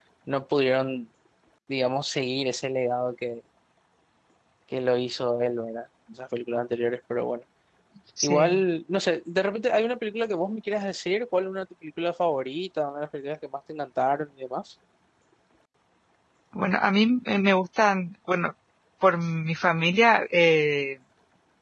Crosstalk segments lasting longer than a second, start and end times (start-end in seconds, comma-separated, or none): none